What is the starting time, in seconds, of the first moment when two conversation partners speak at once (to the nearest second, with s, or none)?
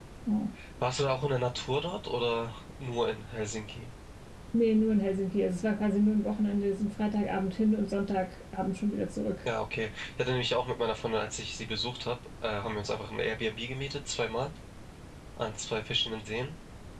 none